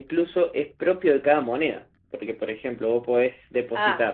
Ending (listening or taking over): taking over